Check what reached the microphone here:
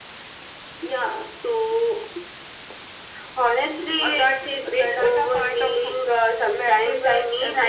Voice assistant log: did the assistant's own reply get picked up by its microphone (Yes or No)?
Yes